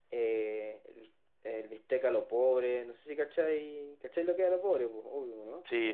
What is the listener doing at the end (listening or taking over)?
taking over